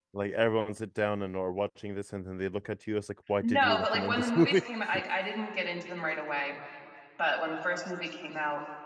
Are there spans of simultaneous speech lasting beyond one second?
Yes, from 3.4 s

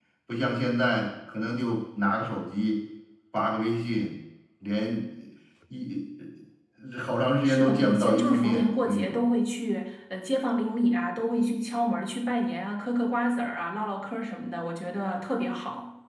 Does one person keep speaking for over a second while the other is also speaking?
Yes, from 7.4 s

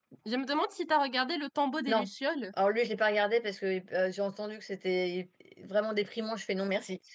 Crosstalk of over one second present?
No

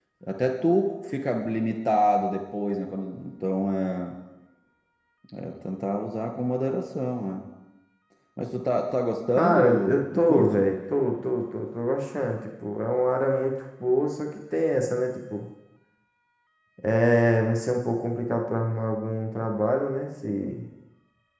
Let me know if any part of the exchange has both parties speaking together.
Yes, from 9.4 s

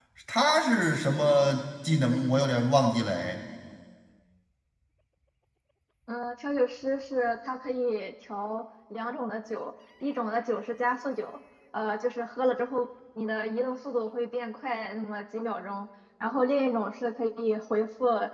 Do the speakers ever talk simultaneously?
No

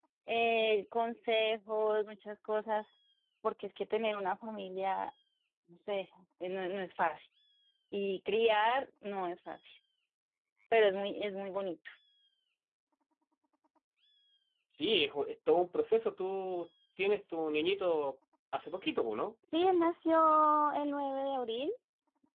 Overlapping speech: No

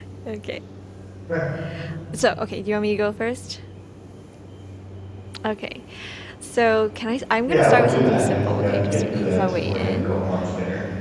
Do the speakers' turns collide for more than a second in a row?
Yes, from 7.5 s

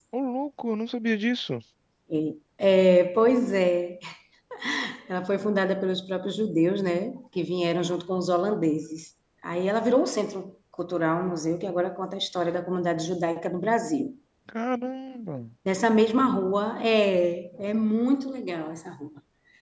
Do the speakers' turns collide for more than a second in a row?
No

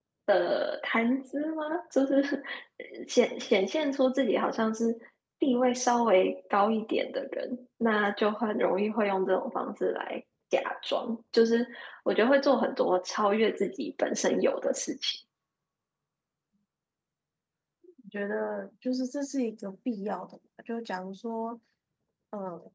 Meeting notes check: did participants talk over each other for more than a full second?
No

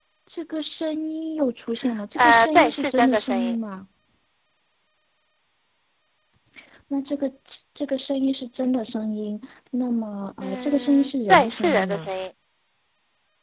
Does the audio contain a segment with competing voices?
Yes, from 2.2 s

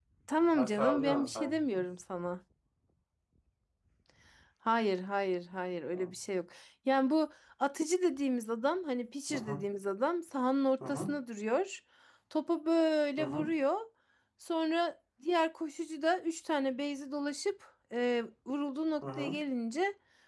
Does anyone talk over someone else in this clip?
Yes, from 0.5 s

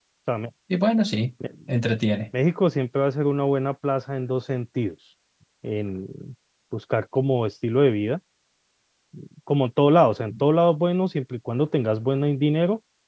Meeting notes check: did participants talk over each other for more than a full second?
No

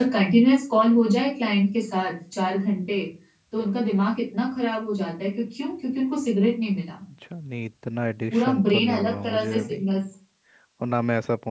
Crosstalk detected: Yes, from 8.3 s

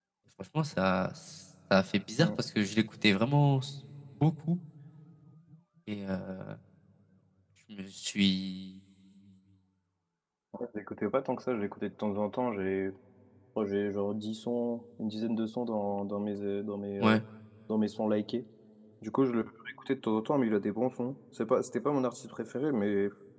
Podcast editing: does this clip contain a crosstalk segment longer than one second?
No

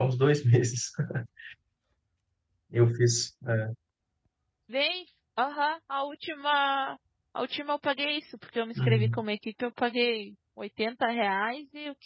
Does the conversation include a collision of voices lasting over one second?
No

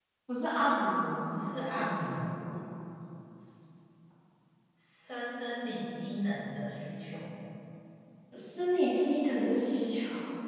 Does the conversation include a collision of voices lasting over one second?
Yes, from 1.3 s

